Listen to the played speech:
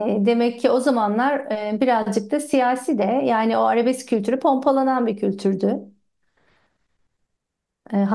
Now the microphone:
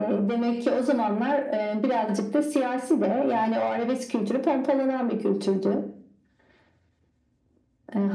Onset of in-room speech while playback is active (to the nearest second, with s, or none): none